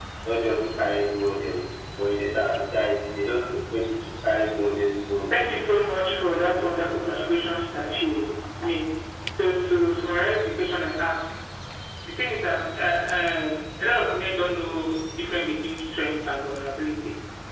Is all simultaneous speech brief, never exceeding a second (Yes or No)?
No